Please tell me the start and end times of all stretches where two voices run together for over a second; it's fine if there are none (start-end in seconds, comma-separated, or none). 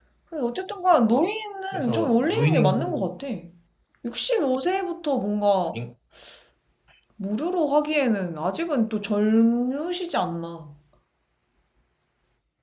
1.7-3.1